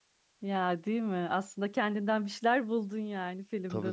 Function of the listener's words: taking over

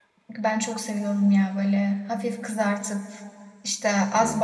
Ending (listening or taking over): listening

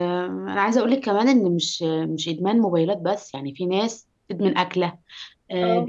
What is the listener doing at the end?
listening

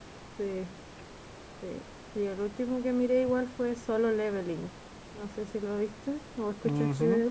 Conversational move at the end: taking over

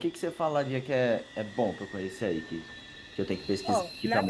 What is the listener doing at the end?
taking over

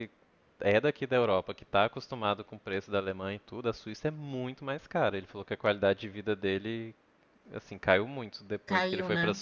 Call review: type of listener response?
listening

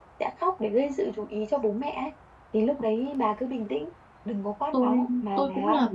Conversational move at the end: taking over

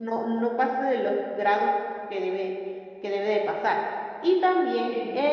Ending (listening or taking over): listening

